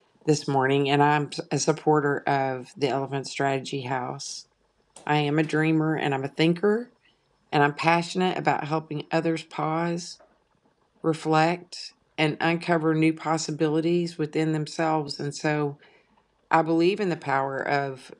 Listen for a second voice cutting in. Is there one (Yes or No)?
No